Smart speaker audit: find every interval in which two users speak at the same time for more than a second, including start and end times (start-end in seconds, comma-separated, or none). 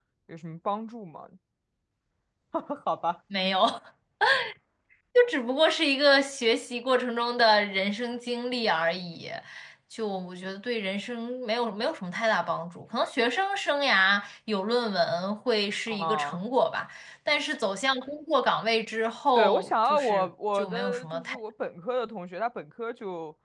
19.4-21.4